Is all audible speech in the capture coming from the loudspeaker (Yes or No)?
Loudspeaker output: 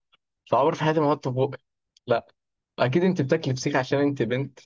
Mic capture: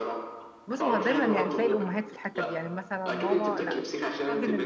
No